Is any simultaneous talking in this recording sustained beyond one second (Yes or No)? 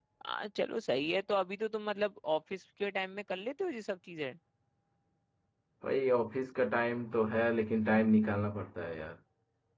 No